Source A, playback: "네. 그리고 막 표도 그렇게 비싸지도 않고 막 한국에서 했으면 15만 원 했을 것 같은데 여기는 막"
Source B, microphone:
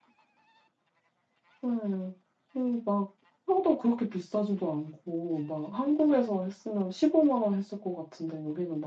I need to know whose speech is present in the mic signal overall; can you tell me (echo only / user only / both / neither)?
echo only